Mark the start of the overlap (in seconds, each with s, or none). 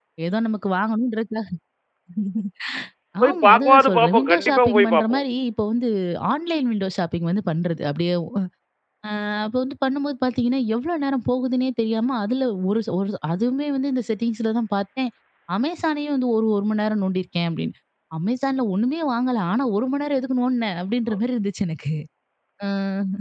3.2 s